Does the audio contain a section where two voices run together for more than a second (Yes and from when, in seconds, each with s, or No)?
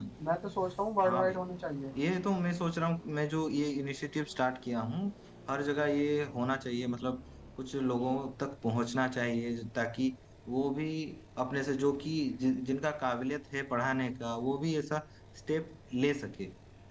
No